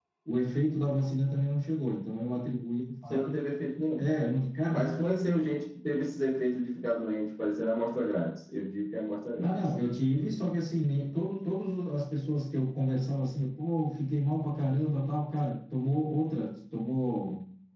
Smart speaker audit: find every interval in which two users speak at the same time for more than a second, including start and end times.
none

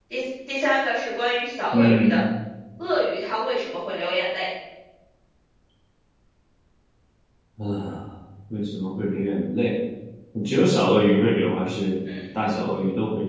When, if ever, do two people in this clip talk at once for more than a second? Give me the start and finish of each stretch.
none

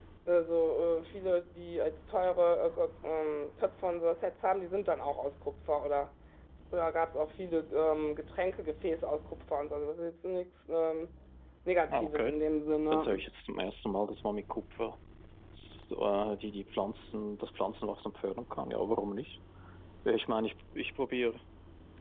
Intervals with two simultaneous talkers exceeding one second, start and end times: none

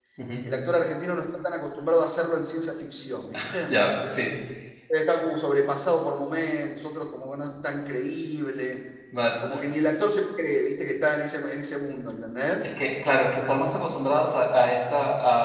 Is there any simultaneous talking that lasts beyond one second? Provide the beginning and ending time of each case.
none

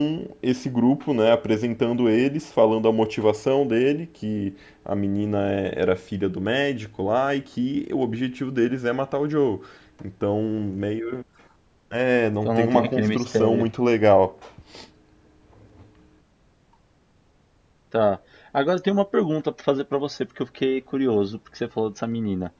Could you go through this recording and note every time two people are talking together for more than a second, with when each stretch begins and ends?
12.4-13.7

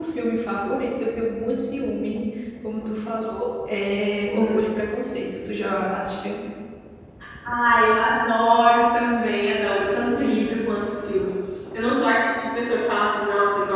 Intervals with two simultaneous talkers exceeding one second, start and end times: none

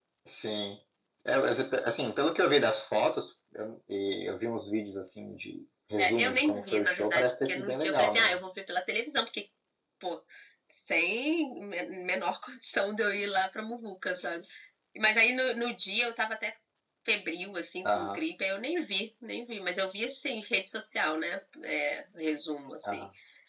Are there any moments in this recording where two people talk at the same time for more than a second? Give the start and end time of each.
6.0-8.4

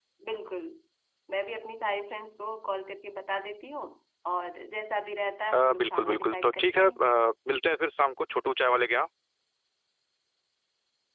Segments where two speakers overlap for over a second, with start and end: 5.5-6.9

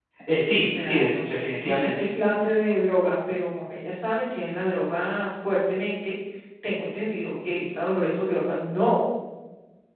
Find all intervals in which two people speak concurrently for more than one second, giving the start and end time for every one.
0.6-2.0

